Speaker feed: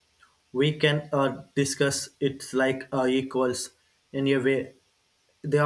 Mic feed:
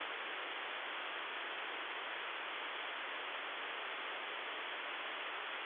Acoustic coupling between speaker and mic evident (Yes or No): No